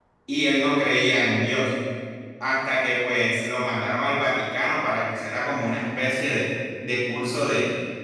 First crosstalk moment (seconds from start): none

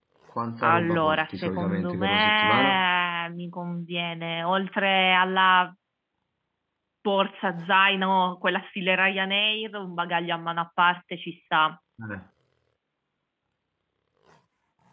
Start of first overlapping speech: 0.6 s

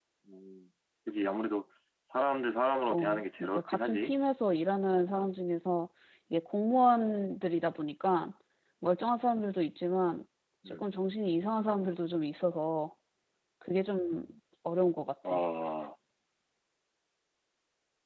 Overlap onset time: 2.9 s

